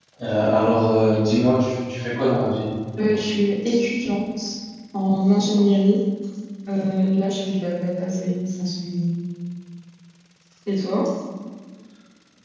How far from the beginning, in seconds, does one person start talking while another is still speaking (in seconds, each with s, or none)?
none